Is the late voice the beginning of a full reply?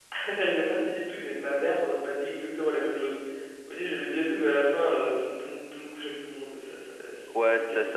Yes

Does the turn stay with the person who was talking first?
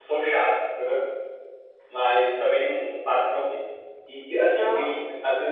Yes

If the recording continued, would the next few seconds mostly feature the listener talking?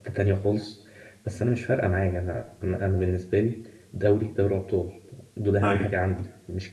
No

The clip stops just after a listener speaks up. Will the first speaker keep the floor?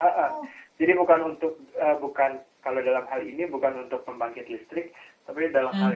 Yes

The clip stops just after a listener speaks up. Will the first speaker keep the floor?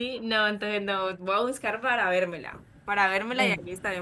Yes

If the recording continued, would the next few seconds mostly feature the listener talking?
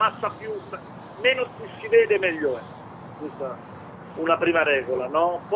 No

